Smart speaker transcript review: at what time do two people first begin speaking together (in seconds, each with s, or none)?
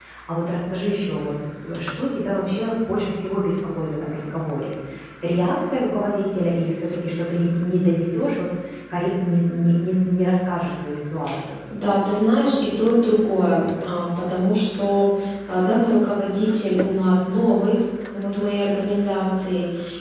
none